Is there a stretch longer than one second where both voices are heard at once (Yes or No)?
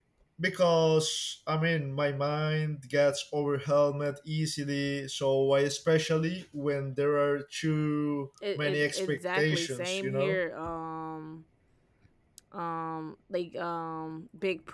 Yes